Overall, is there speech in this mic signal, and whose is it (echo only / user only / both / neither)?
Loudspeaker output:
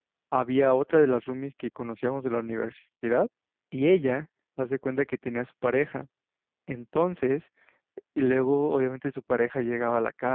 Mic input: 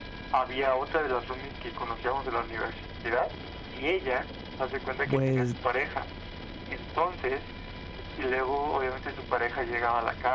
both